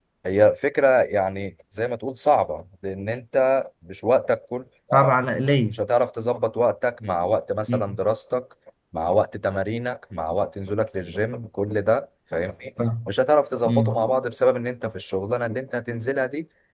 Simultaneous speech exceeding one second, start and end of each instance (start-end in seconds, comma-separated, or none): none